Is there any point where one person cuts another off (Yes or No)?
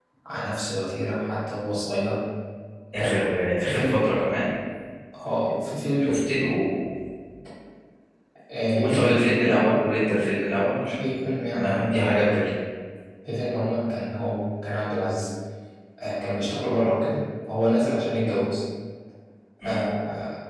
Yes